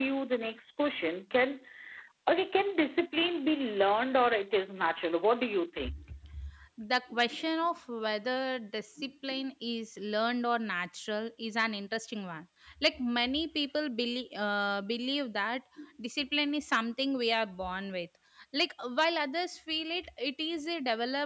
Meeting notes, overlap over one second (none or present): none